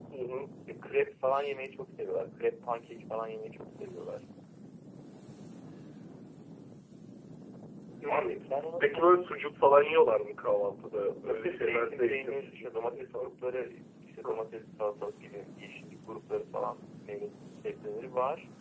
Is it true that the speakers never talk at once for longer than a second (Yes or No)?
No